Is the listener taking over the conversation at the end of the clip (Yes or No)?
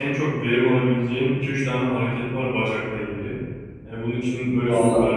No